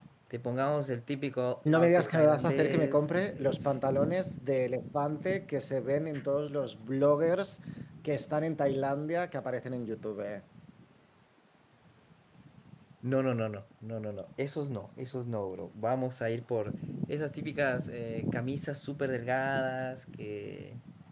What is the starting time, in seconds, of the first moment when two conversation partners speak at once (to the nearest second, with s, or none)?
2 s